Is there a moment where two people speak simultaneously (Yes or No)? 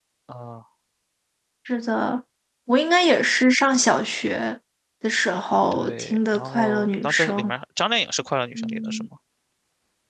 Yes